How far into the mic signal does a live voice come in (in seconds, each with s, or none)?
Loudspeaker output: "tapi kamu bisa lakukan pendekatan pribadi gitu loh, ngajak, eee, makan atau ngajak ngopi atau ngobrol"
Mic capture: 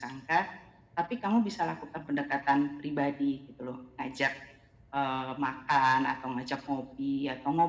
none